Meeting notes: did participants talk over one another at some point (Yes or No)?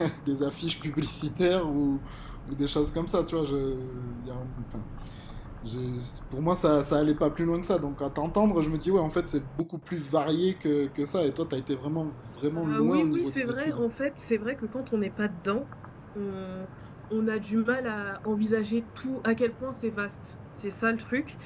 Yes